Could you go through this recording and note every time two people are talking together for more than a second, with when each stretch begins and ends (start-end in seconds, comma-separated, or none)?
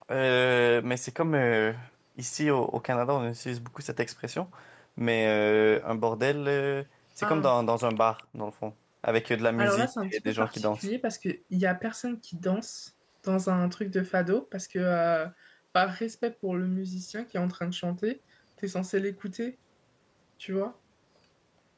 9.6-10.9